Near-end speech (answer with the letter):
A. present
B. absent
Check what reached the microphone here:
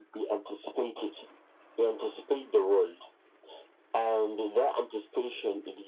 B